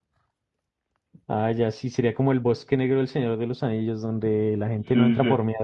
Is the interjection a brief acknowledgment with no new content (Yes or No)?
No